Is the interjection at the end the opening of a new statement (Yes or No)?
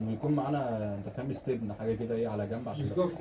Yes